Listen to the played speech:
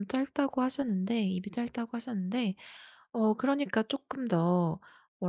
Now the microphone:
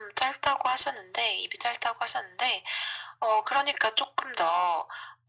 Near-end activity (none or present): none